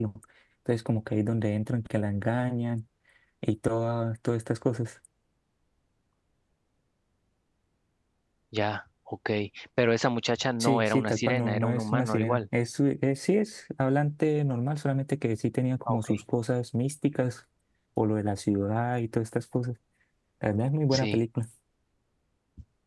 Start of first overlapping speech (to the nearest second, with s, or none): 11 s